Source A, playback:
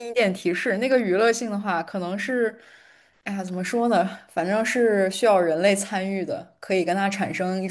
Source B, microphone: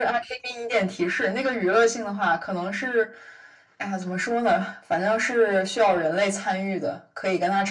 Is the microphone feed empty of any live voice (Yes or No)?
Yes